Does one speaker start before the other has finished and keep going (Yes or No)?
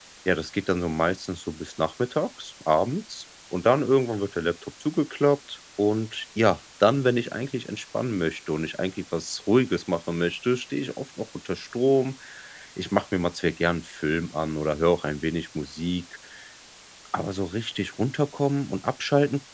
No